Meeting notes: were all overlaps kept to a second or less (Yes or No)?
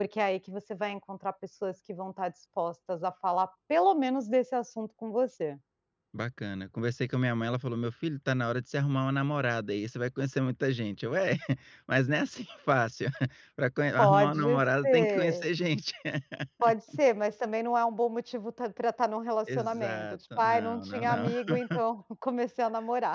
No